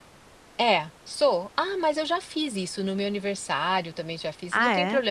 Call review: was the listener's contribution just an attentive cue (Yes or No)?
Yes